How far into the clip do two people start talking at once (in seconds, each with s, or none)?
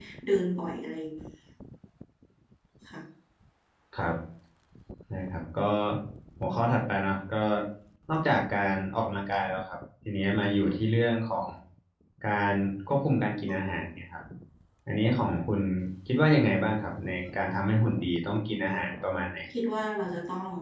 none